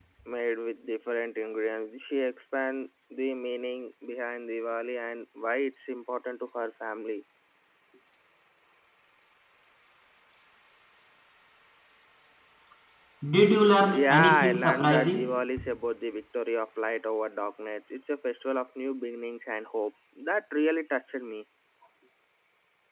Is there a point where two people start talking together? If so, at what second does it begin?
13.9 s

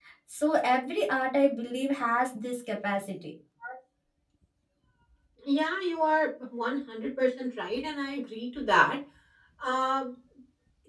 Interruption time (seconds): none

